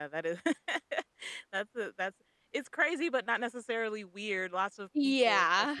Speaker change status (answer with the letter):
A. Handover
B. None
B